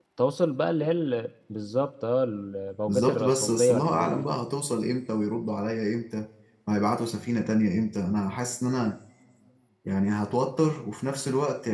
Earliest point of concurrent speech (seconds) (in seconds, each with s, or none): 2.9 s